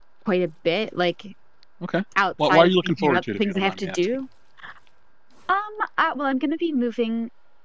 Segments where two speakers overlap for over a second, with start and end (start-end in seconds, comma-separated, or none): 2.4-4.0